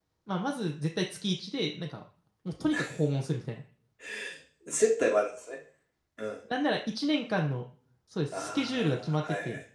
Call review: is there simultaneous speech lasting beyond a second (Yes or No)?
Yes